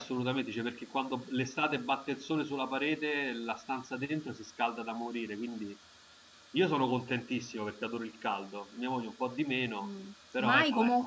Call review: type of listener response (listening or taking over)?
taking over